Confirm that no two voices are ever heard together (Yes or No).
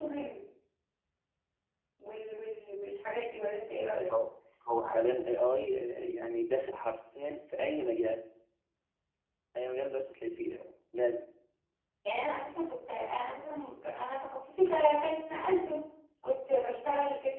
Yes